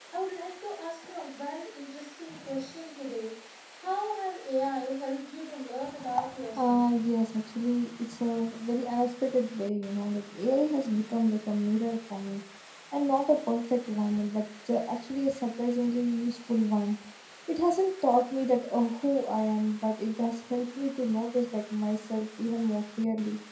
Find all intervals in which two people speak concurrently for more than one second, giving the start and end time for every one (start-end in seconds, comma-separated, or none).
none